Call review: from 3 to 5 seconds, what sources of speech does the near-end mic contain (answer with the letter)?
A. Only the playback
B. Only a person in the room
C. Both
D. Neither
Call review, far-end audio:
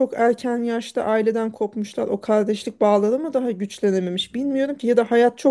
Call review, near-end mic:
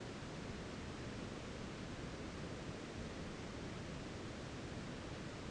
D